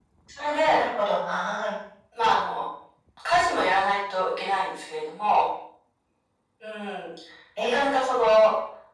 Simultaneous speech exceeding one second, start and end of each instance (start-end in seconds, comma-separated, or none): none